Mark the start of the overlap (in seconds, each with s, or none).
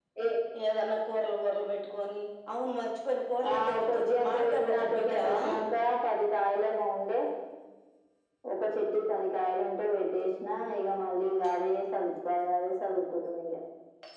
3.5 s